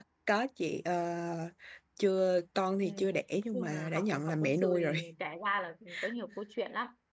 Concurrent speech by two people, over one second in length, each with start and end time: 3.5-4.9

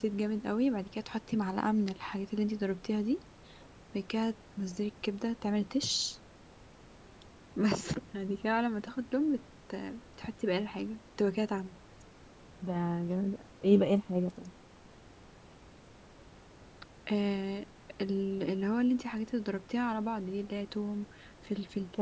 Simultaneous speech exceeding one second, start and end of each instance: none

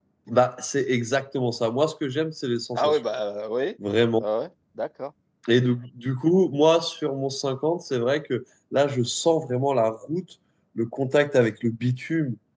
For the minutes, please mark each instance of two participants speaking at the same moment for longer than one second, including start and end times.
none

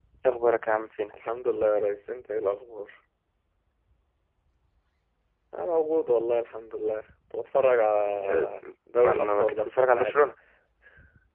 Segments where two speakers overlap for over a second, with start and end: 9.0-10.2

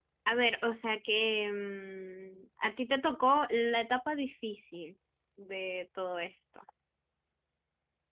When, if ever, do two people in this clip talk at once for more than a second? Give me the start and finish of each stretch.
none

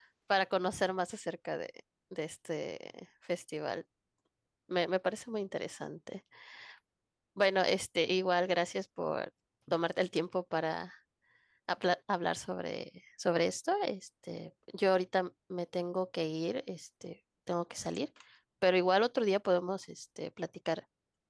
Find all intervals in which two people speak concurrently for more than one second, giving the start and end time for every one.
none

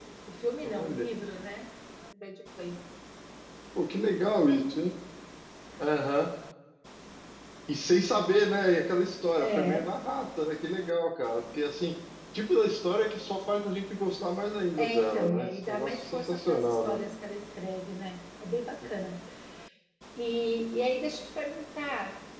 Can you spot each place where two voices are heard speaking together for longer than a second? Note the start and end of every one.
14.8-17.0

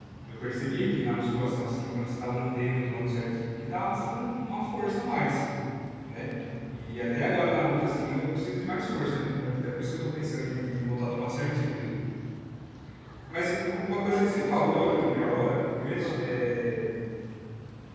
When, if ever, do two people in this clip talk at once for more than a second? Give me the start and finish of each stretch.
14.1-15.4

